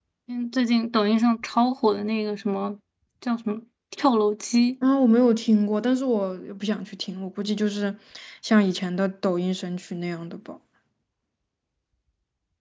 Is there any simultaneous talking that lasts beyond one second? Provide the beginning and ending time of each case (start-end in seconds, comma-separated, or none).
none